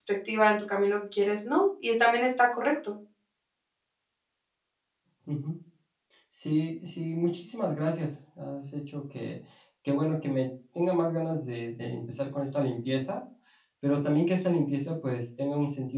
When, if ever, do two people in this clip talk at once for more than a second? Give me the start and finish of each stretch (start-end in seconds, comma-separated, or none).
none